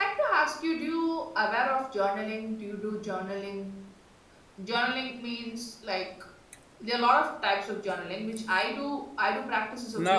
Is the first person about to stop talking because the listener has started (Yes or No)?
No